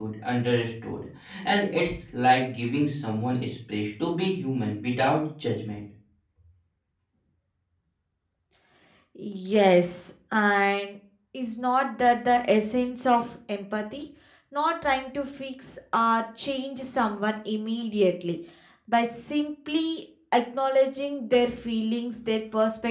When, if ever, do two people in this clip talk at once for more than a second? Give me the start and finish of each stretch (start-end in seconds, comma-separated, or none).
none